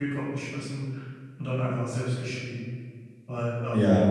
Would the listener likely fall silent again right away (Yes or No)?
Yes